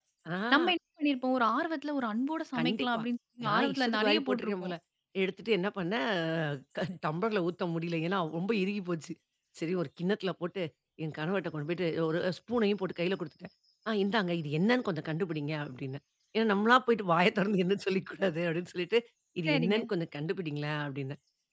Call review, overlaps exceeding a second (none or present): present